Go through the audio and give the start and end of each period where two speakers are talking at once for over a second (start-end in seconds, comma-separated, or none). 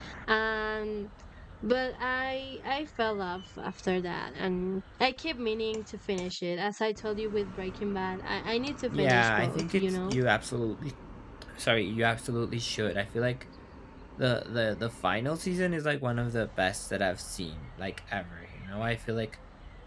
8.9-10.2